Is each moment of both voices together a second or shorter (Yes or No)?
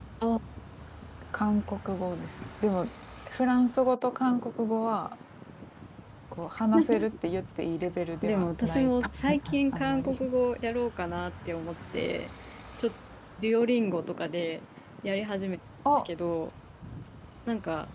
No